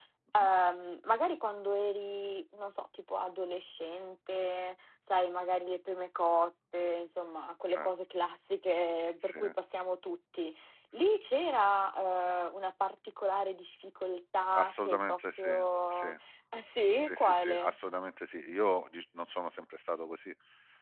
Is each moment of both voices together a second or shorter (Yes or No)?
No